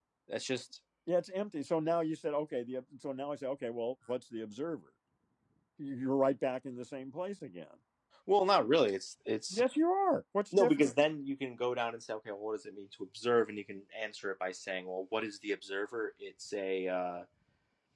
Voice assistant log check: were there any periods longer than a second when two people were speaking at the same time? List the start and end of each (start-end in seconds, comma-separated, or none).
none